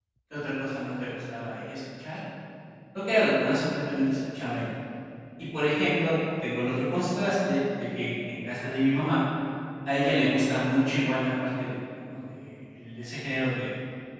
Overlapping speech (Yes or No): No